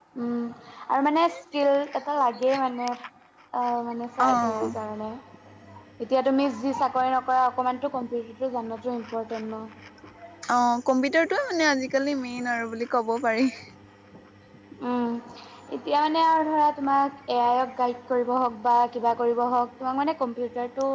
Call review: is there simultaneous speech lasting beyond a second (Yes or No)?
No